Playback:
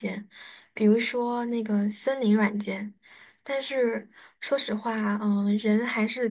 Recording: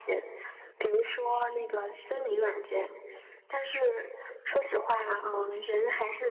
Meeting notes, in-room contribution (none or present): none